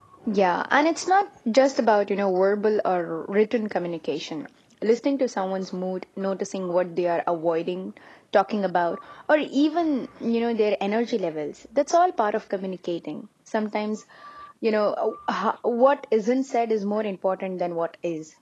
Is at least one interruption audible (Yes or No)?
No